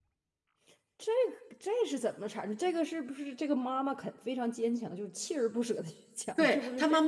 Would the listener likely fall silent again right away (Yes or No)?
No